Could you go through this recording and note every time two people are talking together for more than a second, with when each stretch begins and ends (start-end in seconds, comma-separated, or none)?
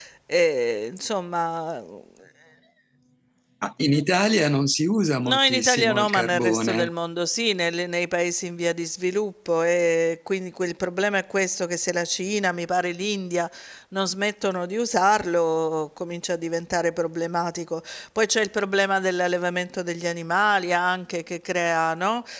5.2-6.9